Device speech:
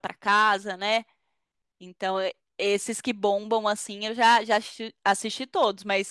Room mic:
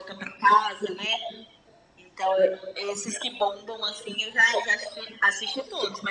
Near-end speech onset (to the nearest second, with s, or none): none